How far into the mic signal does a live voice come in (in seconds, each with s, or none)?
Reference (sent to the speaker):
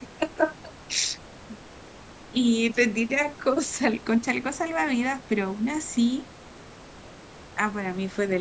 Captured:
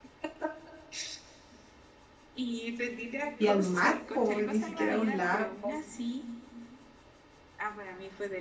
3.4 s